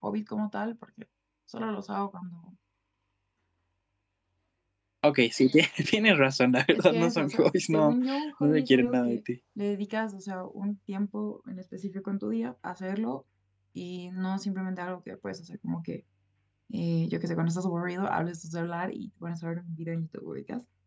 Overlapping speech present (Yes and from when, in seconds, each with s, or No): Yes, from 6.7 s